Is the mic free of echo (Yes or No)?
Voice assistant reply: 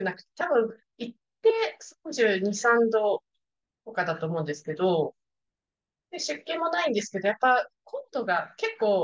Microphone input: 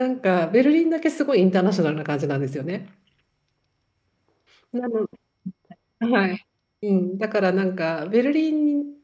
Yes